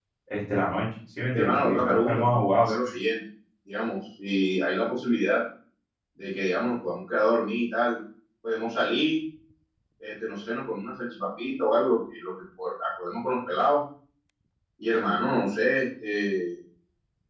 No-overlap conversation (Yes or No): No